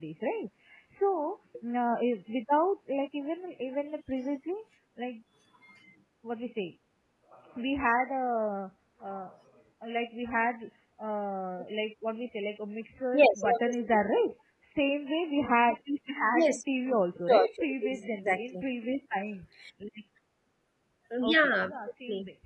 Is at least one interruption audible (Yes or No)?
Yes